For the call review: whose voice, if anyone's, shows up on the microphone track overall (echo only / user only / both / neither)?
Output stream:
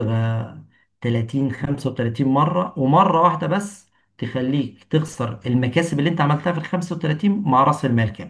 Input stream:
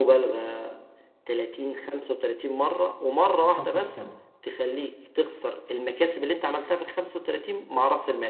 both